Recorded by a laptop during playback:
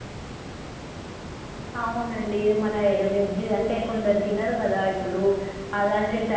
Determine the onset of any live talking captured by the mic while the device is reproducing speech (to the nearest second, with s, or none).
2 s